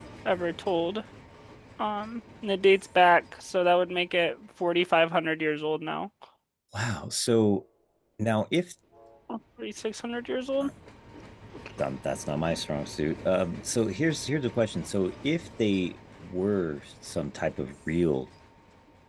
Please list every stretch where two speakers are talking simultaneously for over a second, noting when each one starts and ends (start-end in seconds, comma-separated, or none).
none